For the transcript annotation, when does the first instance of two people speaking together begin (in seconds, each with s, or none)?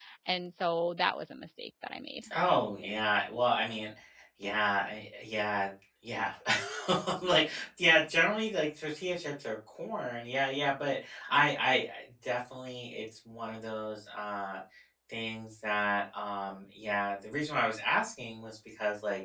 none